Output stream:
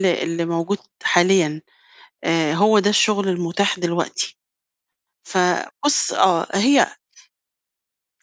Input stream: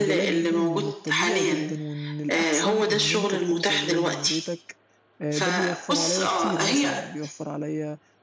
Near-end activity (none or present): present